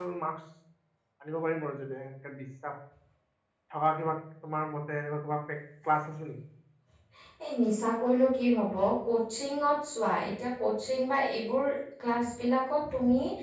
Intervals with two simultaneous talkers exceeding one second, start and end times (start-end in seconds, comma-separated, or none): none